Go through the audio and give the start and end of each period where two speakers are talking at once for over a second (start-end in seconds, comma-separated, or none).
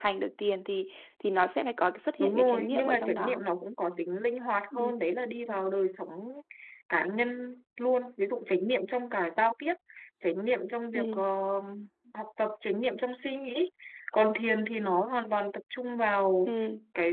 2.2-3.4